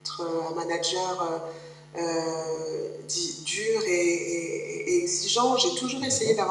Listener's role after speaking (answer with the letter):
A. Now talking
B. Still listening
B